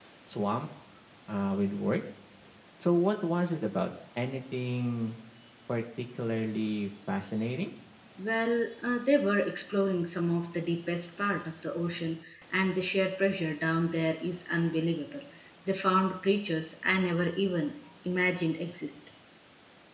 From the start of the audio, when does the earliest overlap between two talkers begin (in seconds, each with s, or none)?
none